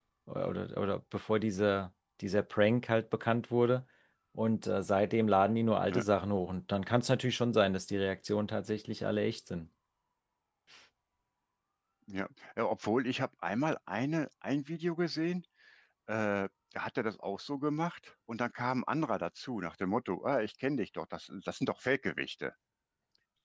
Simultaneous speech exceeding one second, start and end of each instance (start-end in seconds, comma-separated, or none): none